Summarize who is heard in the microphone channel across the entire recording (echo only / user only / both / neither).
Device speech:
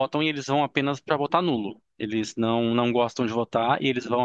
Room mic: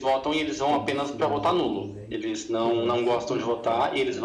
both